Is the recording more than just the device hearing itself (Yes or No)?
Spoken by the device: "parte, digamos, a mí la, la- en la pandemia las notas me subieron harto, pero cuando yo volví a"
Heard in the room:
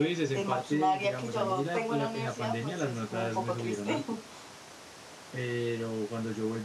Yes